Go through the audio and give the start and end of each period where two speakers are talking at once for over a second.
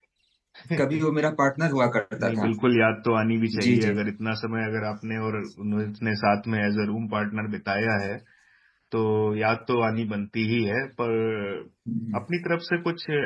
none

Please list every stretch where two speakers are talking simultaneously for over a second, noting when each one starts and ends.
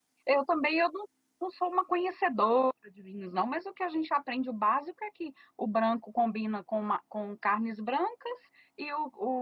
none

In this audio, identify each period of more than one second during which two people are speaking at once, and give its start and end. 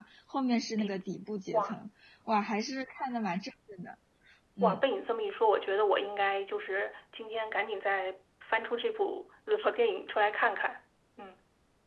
none

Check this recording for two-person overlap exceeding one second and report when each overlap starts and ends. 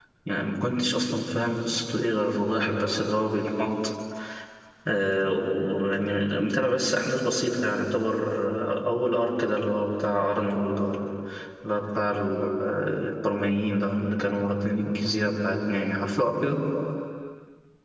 none

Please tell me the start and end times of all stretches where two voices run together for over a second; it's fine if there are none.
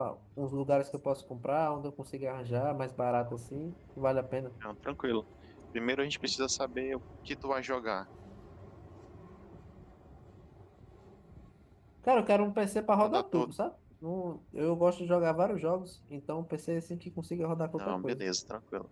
none

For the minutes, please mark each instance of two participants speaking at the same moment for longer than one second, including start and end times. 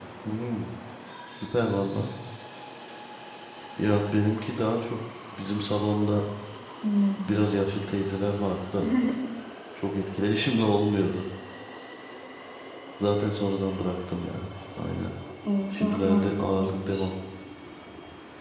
15.8-17.1

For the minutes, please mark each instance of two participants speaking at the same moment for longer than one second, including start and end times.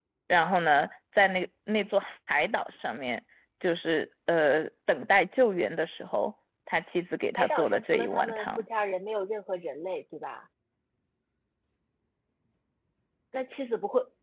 7.4-8.7

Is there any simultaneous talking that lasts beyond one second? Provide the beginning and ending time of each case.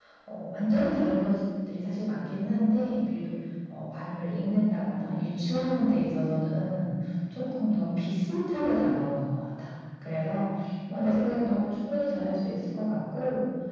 none

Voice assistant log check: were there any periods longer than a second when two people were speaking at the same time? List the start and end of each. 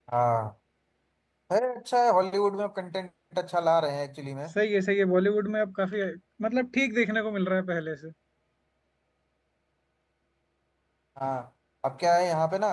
none

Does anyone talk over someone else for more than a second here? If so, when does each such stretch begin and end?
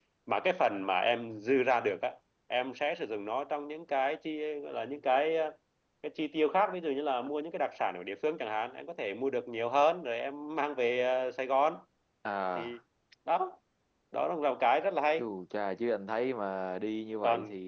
none

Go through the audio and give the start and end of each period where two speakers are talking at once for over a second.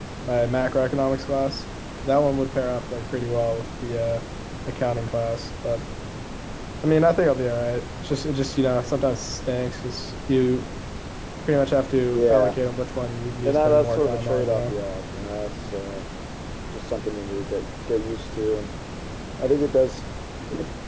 13.4-14.7

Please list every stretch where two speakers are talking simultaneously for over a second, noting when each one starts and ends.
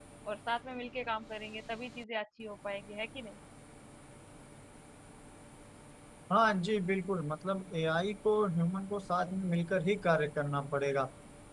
none

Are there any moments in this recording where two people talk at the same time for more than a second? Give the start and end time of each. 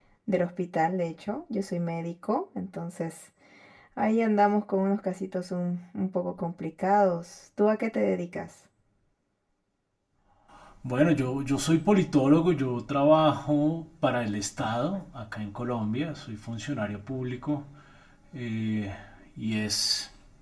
none

